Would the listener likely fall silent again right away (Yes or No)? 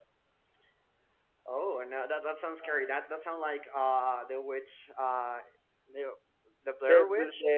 No